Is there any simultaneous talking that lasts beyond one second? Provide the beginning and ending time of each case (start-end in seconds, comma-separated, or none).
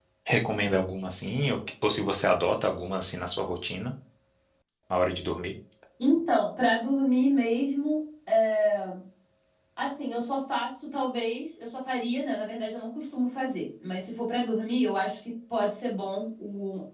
none